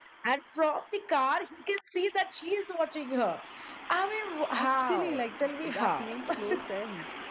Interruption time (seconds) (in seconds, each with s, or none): 4.5 s